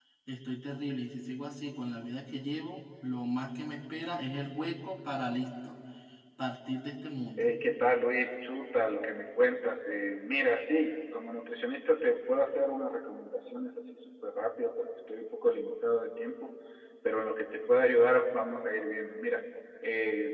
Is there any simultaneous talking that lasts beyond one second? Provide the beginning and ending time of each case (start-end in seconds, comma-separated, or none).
none